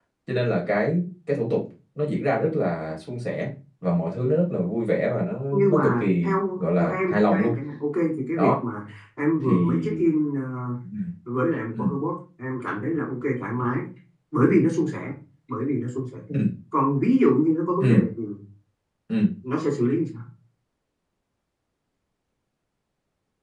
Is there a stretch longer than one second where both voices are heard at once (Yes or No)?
Yes